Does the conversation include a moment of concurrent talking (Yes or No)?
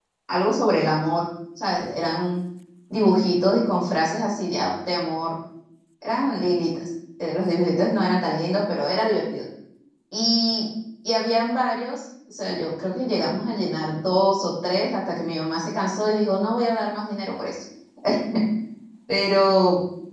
No